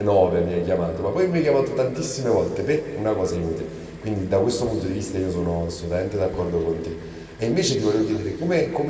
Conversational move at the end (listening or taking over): listening